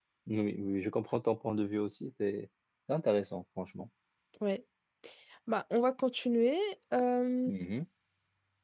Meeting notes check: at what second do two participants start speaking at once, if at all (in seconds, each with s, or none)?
none